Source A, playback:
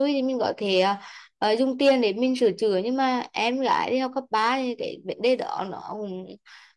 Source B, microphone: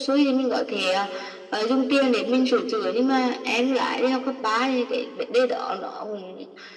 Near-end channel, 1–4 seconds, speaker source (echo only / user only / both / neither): echo only